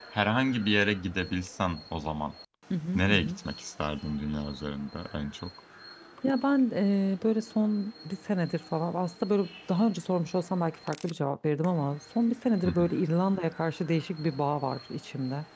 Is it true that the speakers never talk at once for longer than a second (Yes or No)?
Yes